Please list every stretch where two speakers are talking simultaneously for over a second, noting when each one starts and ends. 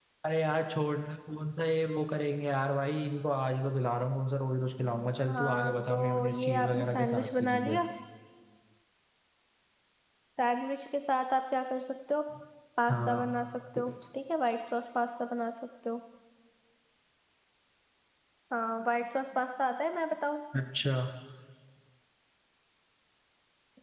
5.3-7.8

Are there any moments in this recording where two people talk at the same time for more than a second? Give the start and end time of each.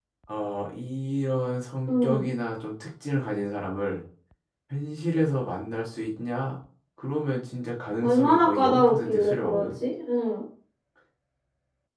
8.0-9.7

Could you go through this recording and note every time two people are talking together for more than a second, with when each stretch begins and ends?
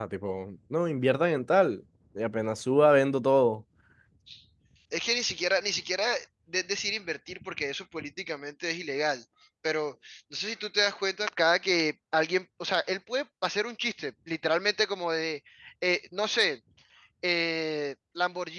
none

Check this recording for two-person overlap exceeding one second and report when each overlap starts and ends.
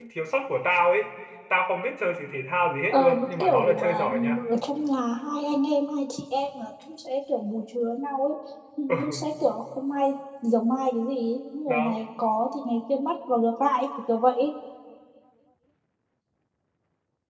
2.9-4.4

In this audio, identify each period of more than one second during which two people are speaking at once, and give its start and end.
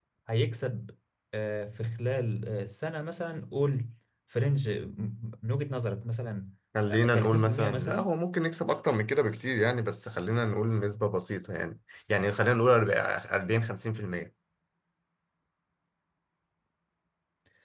6.9-8.1

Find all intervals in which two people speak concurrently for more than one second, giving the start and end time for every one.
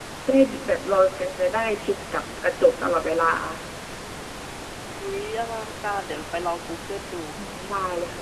none

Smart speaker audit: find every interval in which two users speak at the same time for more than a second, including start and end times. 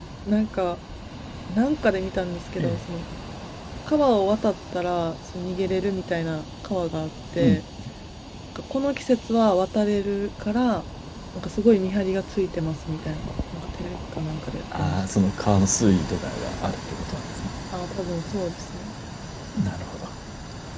none

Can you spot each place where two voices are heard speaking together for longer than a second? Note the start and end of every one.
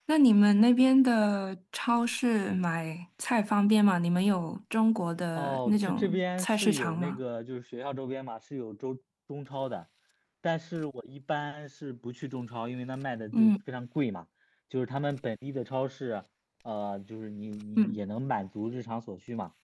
5.4-7.2

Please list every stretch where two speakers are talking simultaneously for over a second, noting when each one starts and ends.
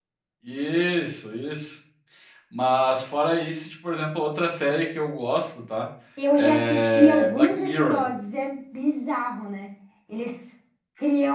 6.3-8.1

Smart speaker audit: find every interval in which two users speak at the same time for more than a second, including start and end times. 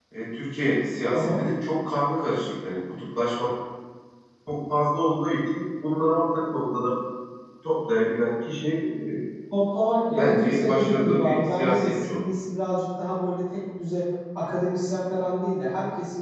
10.1-12.2

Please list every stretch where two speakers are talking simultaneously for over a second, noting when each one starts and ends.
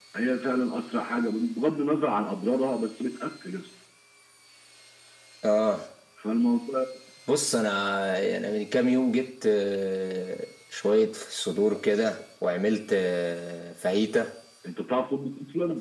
none

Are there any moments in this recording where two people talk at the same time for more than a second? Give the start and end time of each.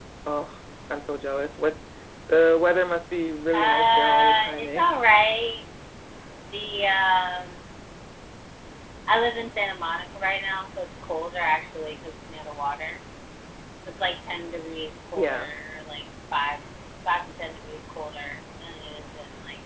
3.5-4.8

